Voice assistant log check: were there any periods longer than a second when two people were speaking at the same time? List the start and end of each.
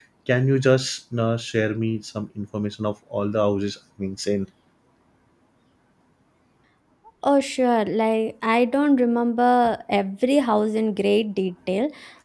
none

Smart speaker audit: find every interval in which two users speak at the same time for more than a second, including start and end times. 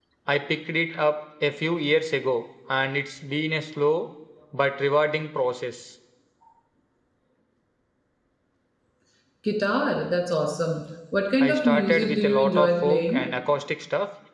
11.4-13.3

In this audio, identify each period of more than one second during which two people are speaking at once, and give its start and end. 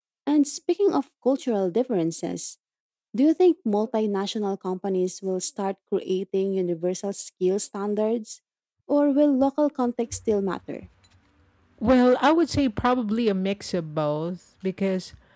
none

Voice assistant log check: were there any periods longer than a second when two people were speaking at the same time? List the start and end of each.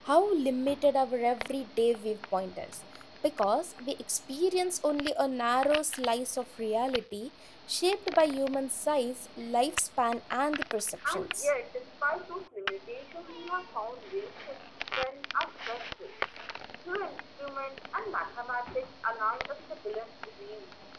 none

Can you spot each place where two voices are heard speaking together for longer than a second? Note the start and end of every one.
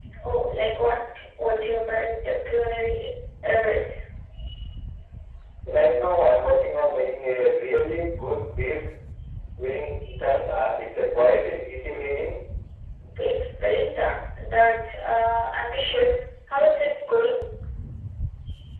none

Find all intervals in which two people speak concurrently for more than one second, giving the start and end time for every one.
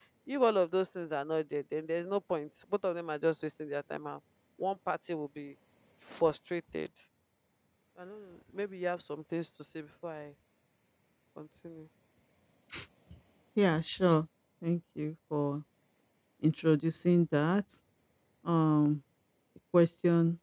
none

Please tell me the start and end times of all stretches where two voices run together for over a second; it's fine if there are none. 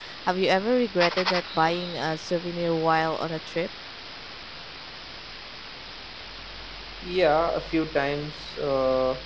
none

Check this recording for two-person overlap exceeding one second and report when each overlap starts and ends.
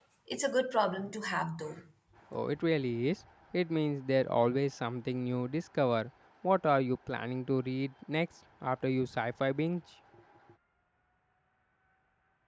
none

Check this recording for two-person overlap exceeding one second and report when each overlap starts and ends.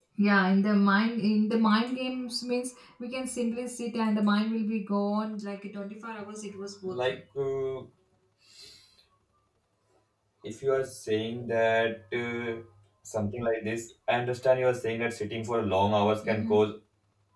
none

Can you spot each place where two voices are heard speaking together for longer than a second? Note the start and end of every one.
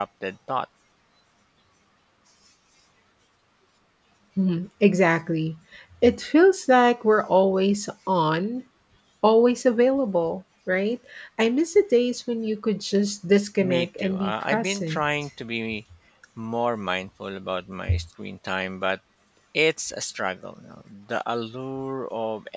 13.6-15.0

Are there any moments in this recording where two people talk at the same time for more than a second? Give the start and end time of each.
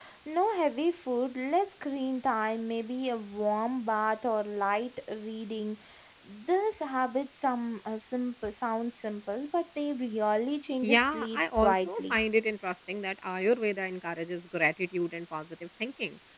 10.8-12.2

